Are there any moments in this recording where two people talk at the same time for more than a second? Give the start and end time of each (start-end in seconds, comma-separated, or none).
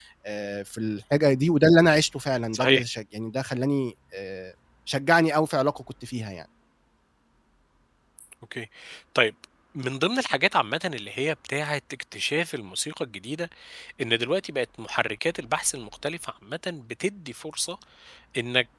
none